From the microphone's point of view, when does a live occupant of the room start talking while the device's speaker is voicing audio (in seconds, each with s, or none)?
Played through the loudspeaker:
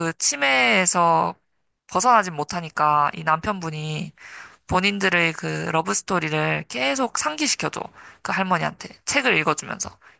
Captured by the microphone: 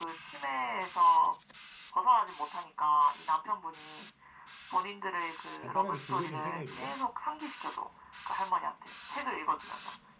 5.6 s